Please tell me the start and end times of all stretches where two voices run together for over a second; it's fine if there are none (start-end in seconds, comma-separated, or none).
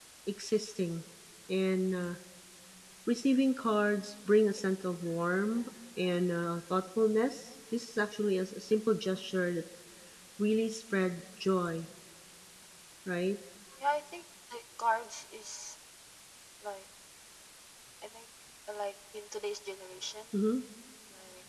none